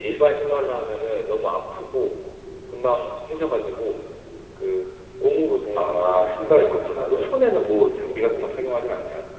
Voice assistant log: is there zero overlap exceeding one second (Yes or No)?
No